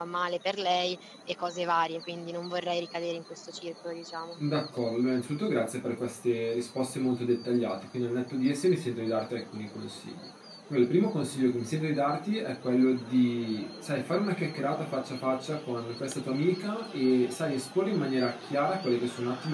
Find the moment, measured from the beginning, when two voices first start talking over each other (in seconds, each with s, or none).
none